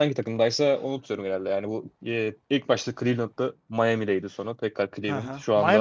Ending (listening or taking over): taking over